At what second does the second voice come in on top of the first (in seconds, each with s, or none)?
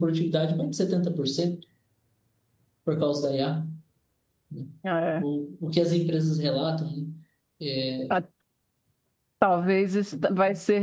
none